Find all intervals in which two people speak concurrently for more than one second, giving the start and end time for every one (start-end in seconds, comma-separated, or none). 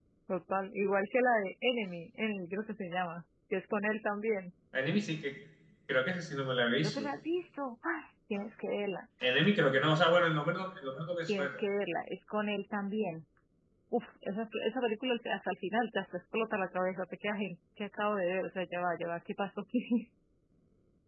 none